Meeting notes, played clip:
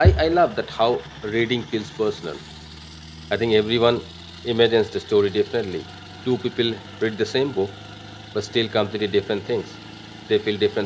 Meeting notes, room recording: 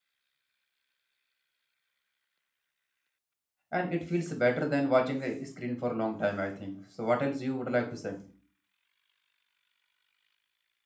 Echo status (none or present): none